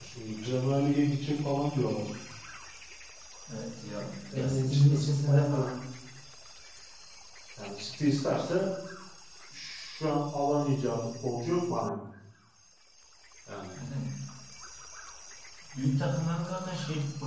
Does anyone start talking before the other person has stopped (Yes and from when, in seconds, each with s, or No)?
Yes, from 4.3 s